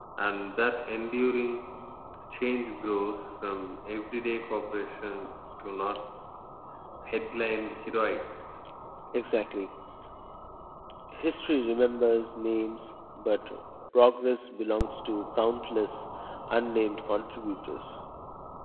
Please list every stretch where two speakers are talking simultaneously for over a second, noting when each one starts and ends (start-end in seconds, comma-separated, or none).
none